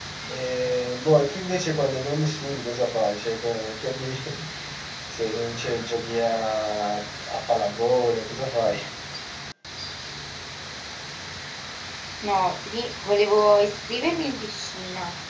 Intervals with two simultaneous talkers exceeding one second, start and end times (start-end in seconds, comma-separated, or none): none